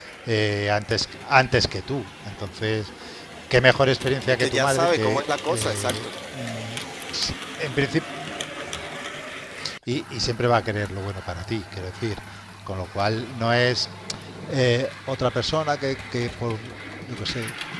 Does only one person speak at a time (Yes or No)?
No